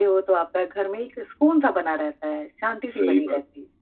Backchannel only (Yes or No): No